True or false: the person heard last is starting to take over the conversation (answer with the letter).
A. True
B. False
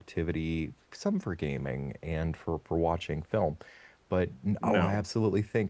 B